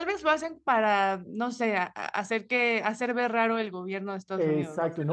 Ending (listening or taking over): taking over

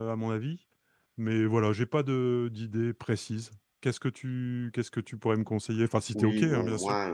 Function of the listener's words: taking over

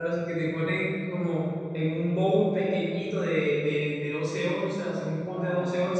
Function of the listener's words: listening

